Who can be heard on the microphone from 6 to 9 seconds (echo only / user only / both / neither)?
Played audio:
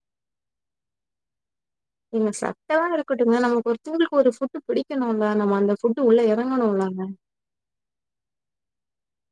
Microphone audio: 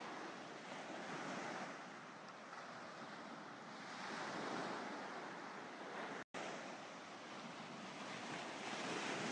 neither